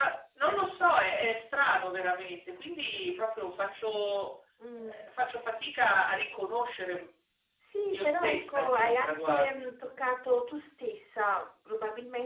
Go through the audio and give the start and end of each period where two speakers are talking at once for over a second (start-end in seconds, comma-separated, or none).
7.9-9.7